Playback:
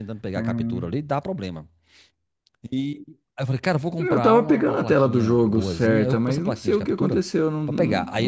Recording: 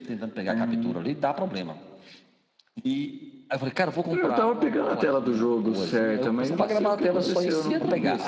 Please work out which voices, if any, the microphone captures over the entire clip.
both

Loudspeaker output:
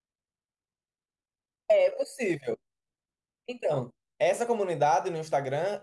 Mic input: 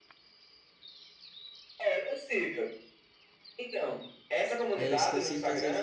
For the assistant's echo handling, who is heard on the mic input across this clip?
both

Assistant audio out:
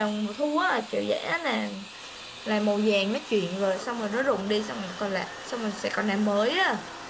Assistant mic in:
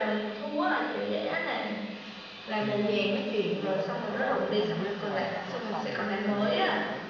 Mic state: both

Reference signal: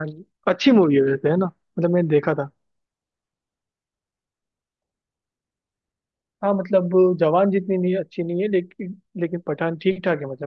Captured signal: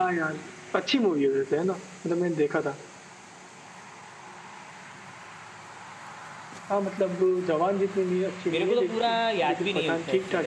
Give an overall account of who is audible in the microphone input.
both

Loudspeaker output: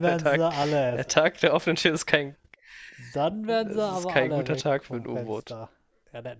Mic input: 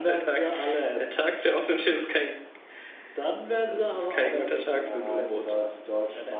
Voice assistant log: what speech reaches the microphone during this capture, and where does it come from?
both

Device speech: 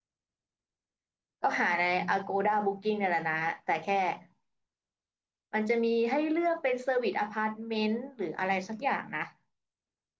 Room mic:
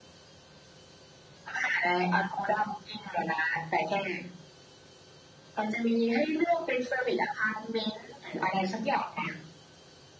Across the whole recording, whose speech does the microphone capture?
echo only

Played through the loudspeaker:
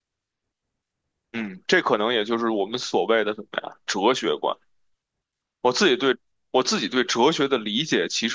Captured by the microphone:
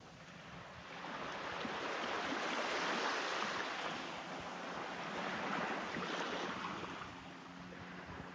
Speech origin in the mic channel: neither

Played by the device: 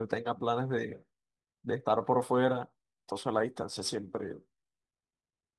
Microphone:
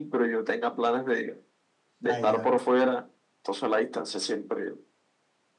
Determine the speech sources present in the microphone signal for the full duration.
both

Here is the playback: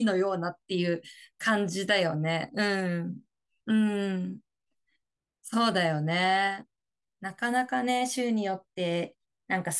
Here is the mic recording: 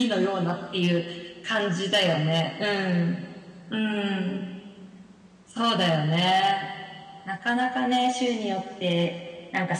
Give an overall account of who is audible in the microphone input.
echo only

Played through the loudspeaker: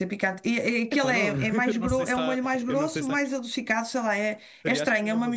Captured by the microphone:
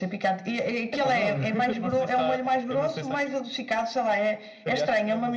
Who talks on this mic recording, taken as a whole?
echo only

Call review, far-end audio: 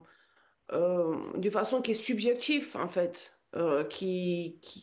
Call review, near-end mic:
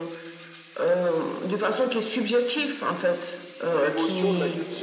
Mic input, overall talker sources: both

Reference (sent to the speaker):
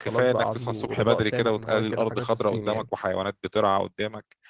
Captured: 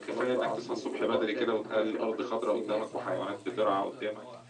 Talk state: both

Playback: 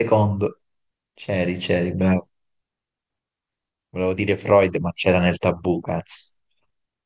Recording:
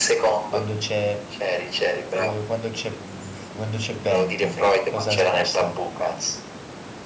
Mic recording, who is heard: both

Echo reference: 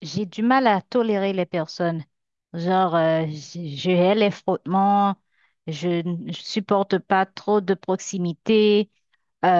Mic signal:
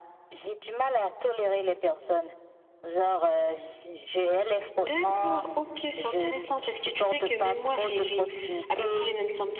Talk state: both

